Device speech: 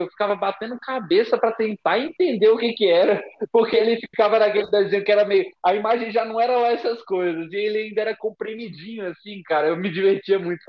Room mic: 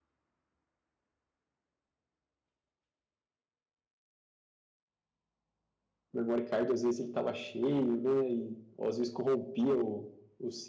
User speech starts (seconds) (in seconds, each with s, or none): 6.1 s